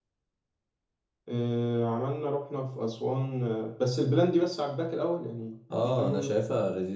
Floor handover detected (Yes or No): Yes